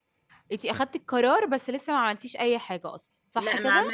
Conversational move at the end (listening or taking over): taking over